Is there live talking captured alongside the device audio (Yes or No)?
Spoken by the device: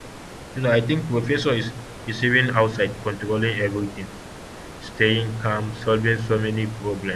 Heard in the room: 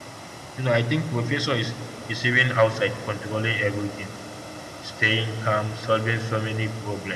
No